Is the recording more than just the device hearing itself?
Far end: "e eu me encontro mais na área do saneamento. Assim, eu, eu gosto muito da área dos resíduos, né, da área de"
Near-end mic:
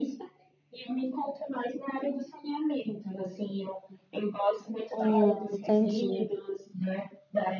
Yes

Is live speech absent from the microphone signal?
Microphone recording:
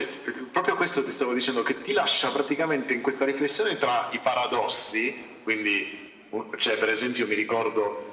Yes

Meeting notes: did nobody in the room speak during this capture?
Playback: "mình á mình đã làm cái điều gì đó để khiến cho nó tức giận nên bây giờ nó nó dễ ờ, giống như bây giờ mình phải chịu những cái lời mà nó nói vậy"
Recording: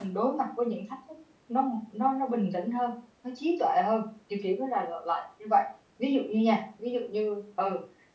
No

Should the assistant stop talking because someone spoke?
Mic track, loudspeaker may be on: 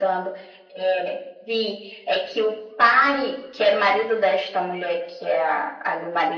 No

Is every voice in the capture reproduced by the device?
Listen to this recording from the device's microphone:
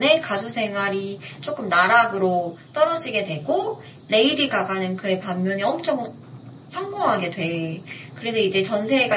Yes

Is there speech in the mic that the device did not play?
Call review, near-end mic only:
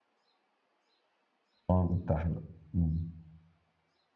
Yes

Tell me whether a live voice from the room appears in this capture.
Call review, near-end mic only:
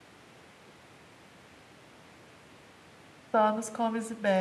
Yes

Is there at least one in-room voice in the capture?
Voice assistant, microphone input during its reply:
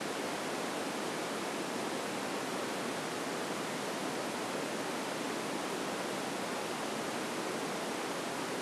No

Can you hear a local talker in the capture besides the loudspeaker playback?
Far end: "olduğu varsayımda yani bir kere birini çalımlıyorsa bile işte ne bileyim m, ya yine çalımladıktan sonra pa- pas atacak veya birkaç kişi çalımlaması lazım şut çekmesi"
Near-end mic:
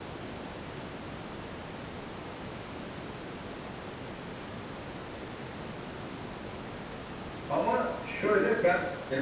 Yes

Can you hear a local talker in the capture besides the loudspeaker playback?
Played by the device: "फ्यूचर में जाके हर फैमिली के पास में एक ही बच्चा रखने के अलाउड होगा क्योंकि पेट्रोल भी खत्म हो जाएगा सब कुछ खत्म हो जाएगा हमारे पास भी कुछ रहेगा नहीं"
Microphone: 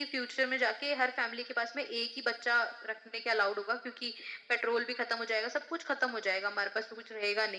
No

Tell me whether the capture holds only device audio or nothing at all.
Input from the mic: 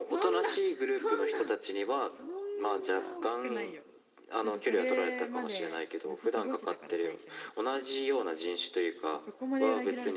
No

